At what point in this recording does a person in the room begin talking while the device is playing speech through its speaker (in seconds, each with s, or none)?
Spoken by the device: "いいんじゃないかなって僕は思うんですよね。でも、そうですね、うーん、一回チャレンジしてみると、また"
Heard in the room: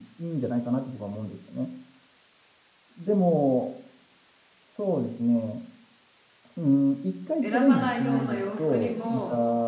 7.4 s